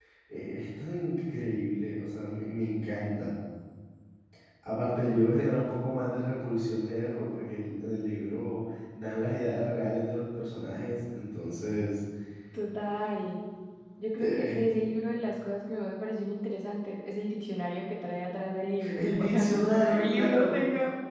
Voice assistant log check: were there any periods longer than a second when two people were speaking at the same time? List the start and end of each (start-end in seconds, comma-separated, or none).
18.9-20.6